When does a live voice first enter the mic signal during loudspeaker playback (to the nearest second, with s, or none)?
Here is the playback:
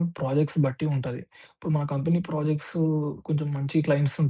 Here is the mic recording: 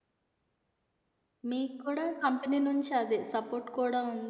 2 s